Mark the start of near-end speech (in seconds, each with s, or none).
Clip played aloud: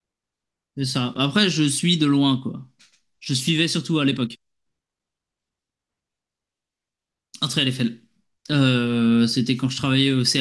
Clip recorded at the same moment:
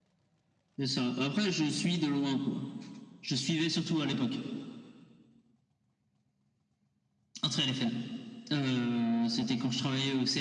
none